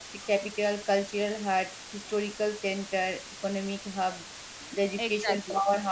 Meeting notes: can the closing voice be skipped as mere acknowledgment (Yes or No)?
Yes